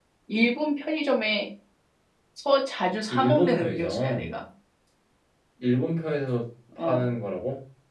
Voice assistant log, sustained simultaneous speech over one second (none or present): present